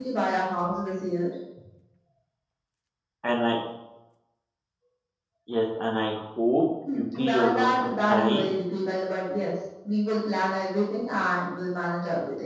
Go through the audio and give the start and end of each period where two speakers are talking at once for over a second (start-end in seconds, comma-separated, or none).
6.9-8.5